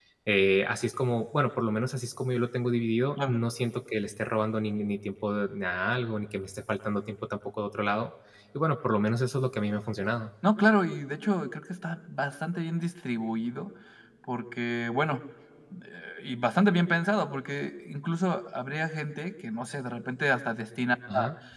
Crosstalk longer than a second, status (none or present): none